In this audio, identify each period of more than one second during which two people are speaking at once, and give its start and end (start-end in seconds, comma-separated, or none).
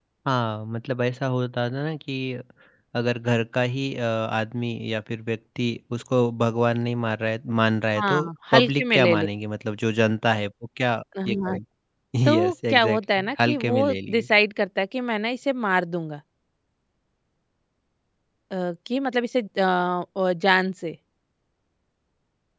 8.0-9.3, 12.4-14.2